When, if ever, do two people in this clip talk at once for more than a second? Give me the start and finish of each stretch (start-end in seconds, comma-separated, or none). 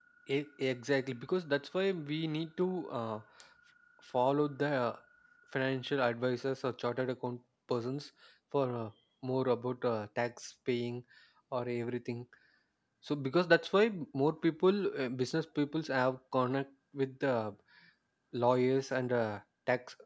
none